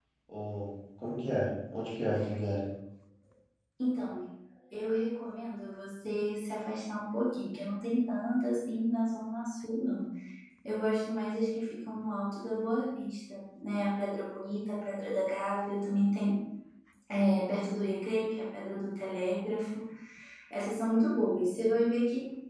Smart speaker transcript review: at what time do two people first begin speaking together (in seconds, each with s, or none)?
none